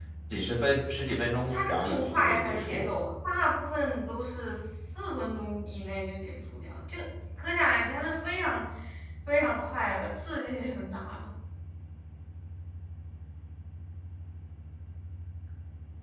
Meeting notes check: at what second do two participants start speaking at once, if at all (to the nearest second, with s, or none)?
1 s